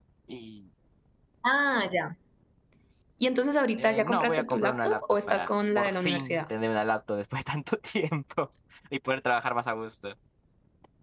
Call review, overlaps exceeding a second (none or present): present